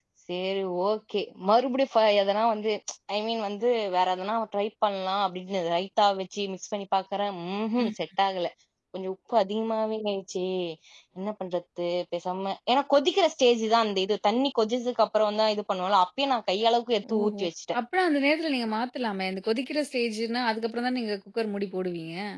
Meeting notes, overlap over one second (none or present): none